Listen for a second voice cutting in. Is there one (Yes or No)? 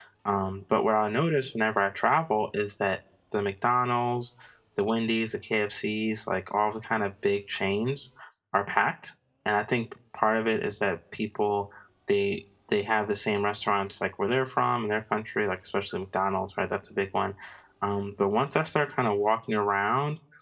No